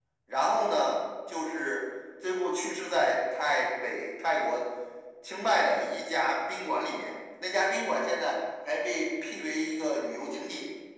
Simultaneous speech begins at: none

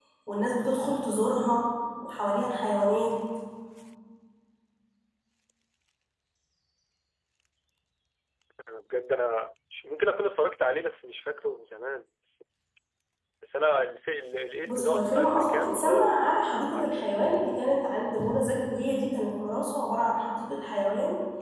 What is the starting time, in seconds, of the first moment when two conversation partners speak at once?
15 s

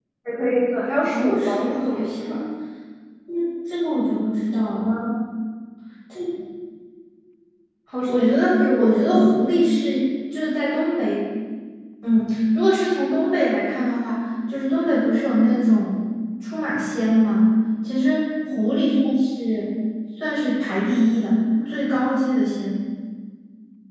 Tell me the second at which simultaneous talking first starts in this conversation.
1 s

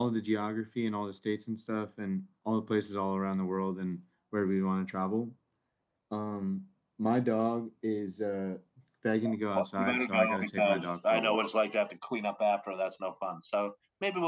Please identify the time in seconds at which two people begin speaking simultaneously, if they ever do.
10 s

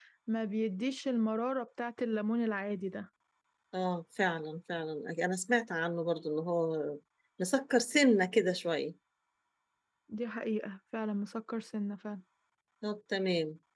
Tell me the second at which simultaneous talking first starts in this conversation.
none

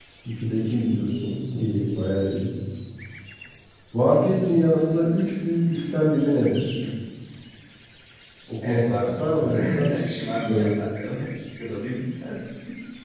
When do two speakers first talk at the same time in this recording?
9 s

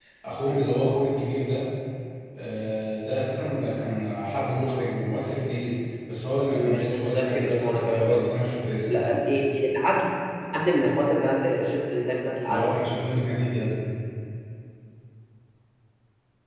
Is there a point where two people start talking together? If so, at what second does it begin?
6 s

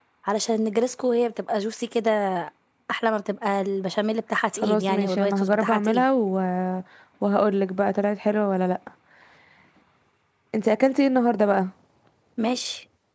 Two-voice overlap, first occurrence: 5 s

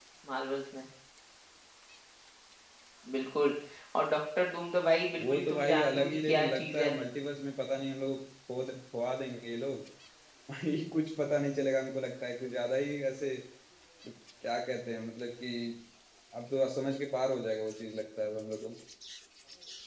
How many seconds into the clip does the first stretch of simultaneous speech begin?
5 s

